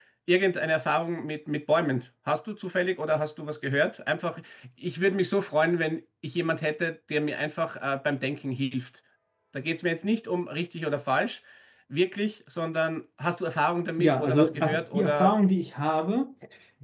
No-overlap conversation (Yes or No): No